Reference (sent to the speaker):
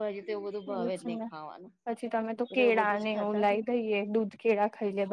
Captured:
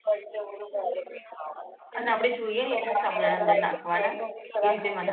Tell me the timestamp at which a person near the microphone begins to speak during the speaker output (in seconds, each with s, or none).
2.0 s